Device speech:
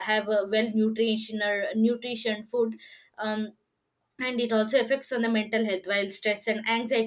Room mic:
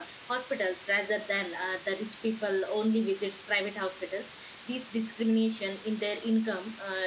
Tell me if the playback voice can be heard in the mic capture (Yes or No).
No